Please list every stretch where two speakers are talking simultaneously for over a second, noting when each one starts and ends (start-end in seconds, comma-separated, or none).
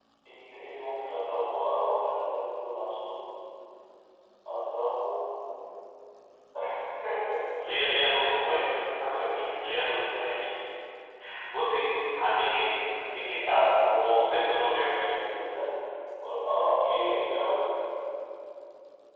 13.5-14.9